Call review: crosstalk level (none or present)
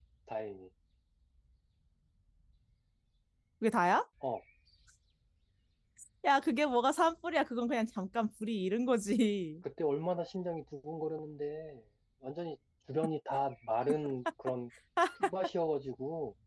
none